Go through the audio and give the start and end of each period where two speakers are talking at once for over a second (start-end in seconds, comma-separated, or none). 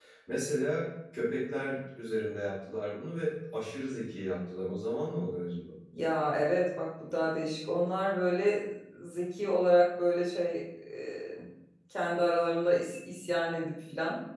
none